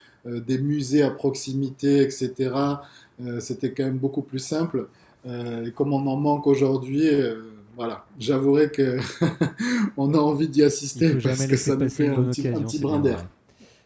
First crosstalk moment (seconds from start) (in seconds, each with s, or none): 10.9 s